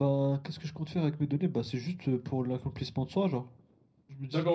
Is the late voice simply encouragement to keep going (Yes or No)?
No